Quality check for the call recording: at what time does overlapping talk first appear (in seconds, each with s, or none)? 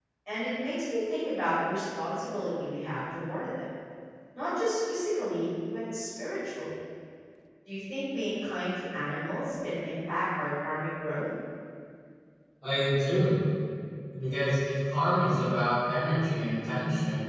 none